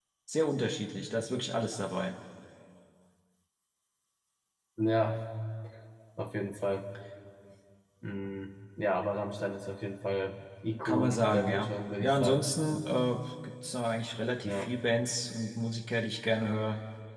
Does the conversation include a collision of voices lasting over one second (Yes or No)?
Yes